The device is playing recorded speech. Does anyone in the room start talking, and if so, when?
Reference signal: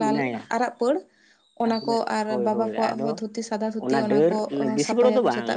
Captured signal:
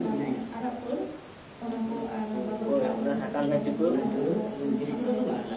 2.7 s

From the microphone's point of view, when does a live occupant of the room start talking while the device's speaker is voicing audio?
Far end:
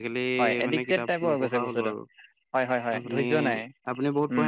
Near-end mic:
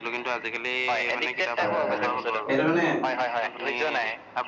1.6 s

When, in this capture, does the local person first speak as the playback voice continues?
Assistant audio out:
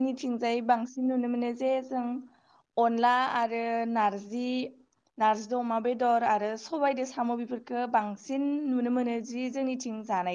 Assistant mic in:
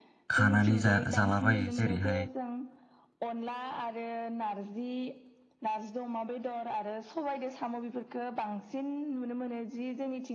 0.4 s

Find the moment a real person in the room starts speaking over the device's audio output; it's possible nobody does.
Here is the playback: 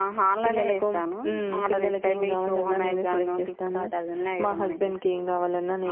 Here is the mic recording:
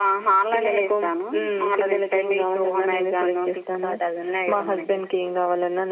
none

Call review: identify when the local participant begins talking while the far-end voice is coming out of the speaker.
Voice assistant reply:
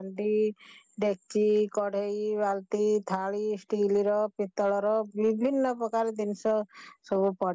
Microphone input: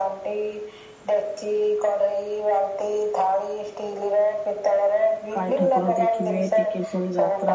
5.4 s

